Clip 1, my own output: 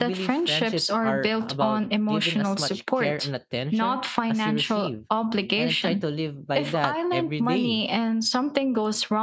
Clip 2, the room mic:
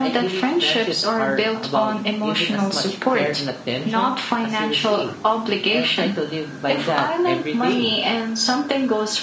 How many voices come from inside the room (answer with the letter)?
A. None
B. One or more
A